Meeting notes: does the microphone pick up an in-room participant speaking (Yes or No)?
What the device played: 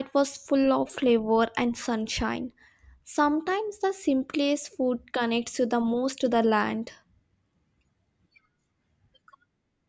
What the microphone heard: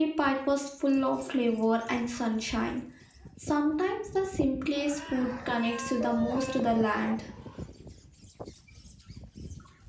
No